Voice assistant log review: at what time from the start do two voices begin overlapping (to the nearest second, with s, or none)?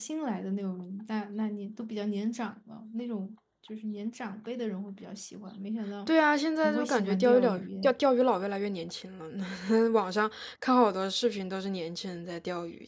7 s